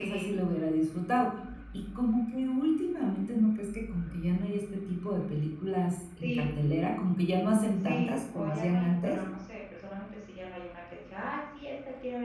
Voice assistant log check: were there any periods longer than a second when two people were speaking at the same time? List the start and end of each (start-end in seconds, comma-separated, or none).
7.8-9.2